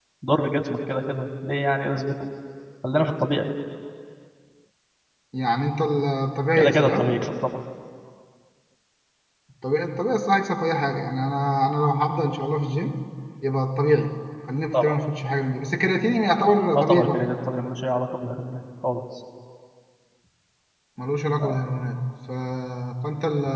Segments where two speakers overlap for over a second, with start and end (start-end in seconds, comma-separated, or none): none